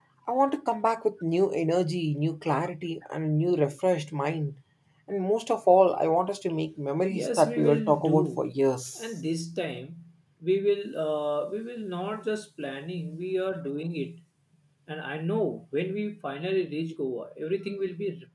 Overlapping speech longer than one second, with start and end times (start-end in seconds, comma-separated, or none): 7.1-8.4